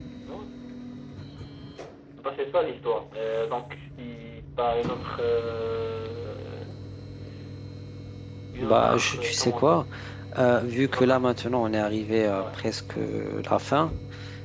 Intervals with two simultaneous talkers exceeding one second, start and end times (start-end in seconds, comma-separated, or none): 8.6-9.8